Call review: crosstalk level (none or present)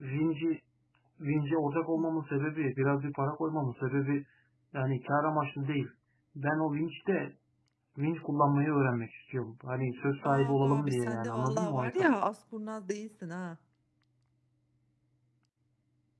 present